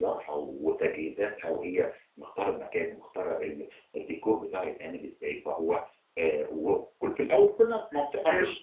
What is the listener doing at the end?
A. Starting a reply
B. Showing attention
B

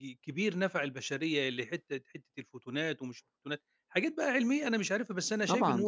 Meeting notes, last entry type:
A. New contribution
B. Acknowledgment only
A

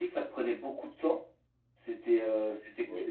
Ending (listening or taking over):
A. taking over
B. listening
B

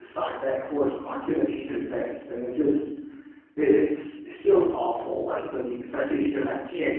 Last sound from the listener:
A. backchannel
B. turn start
A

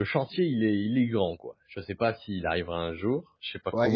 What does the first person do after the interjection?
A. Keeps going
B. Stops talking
B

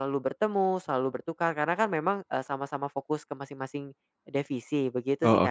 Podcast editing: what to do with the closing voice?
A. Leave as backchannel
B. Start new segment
B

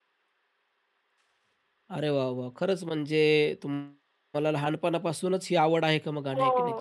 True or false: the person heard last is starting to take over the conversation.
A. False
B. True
B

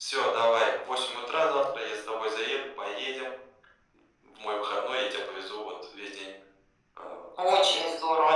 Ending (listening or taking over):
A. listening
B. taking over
B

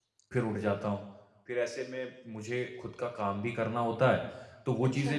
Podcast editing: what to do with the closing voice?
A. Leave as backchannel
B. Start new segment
A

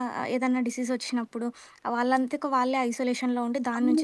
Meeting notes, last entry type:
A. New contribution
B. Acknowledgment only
A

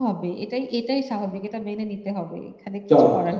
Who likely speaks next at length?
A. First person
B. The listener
B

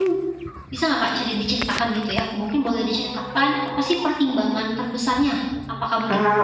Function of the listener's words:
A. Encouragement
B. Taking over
A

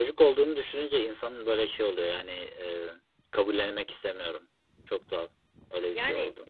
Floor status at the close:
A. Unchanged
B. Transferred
A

